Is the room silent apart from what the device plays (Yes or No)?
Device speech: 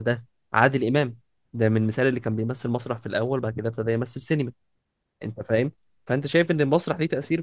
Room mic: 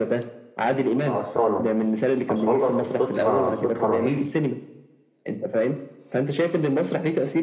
No